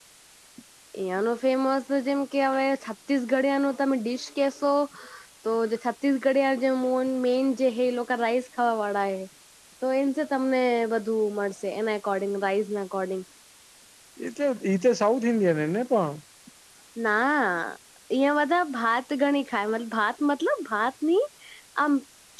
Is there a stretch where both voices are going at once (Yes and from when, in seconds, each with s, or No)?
No